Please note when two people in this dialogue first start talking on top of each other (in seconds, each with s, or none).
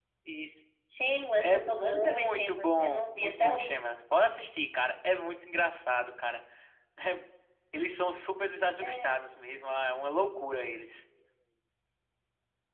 1.4 s